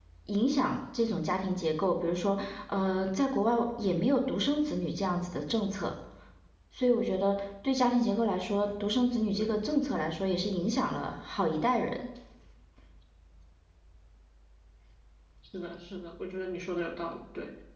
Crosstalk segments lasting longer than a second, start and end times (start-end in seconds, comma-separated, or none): none